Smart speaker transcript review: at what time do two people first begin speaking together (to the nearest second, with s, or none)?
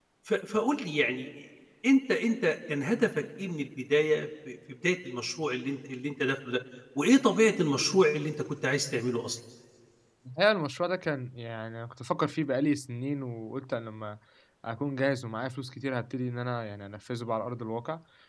none